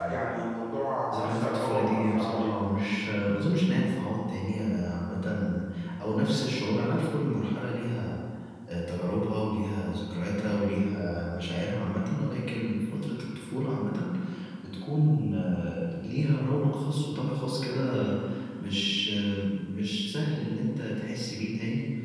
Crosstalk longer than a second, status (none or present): present